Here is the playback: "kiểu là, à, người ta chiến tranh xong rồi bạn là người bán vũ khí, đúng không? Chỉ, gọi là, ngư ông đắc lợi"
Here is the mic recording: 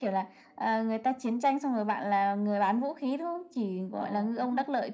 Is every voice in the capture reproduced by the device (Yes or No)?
No